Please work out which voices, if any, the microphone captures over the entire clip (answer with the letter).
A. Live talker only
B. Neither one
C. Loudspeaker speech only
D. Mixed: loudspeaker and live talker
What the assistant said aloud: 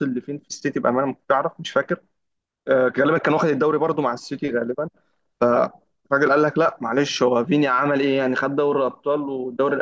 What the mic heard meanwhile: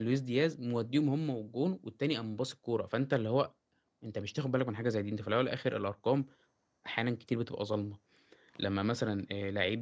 A